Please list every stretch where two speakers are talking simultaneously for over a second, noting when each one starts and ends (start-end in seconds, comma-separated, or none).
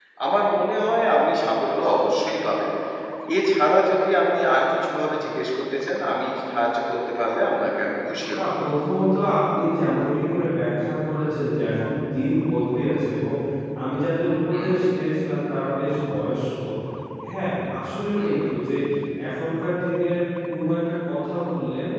none